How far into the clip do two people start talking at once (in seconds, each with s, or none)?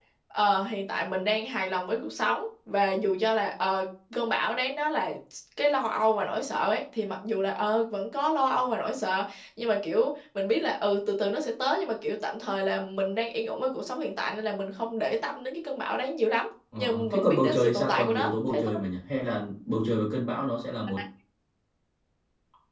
16.7 s